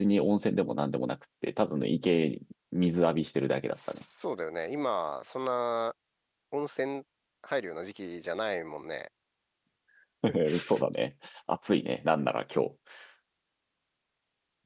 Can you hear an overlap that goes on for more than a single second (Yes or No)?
No